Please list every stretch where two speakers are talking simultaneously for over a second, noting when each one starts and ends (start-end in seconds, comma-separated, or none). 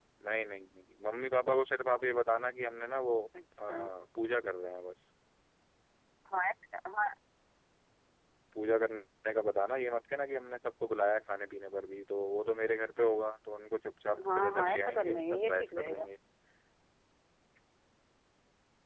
14.3-16.1